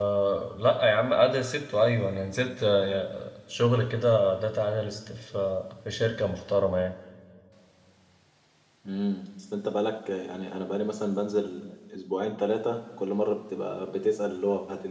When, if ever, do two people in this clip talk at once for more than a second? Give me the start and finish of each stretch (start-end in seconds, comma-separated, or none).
none